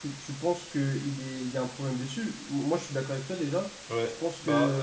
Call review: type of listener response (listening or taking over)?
taking over